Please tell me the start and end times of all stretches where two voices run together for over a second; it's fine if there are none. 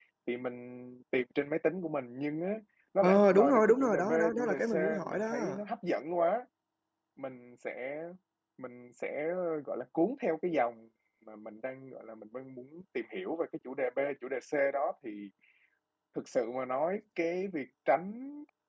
3.0-5.4

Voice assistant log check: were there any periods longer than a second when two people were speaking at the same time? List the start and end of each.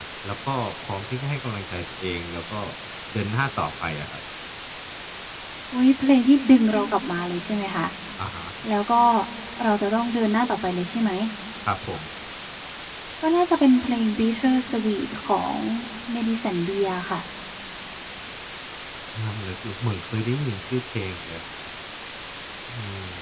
none

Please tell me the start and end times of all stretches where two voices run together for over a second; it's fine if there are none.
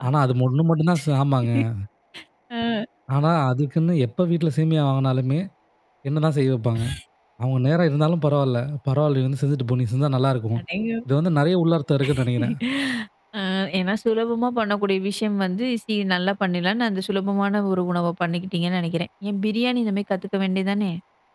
none

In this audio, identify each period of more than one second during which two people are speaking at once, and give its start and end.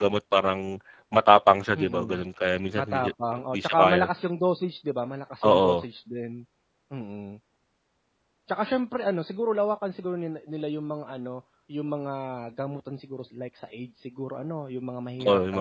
2.8-4.0

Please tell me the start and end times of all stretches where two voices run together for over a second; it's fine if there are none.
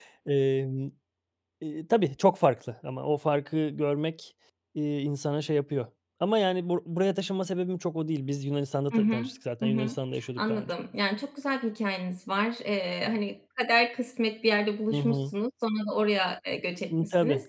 none

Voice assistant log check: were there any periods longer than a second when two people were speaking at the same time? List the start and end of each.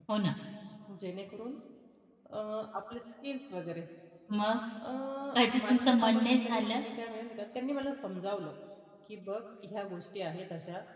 5.5-6.8

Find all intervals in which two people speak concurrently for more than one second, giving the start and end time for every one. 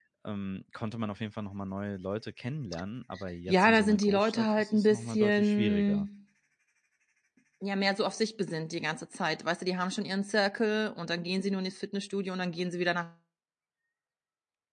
3.5-6.1

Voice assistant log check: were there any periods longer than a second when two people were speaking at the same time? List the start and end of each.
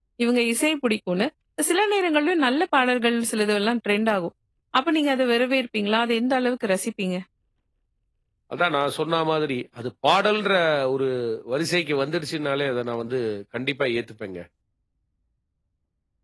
none

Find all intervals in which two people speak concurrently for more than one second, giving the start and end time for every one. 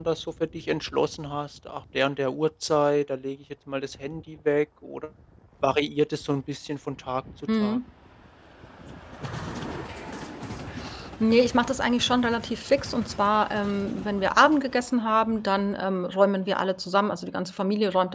none

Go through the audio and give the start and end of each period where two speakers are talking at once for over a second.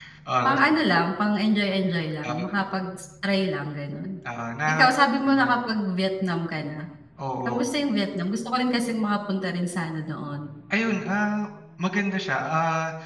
none

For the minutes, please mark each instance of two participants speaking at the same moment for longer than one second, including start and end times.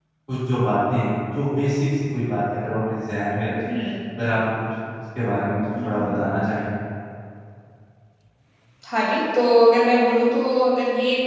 none

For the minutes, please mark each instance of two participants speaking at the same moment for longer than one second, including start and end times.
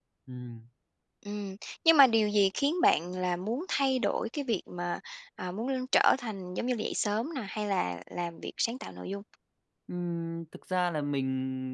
none

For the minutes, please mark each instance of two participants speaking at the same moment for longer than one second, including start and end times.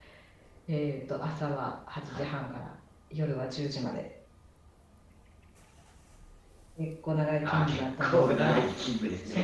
7.4-8.6

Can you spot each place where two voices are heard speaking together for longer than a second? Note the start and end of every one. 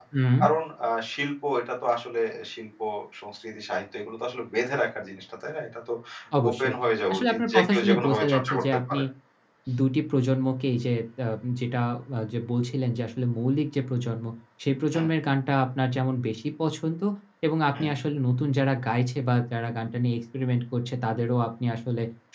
7.1-9.0

